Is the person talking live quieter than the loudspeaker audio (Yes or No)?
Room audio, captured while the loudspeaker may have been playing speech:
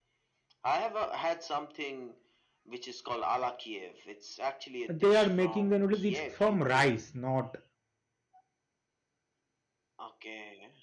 No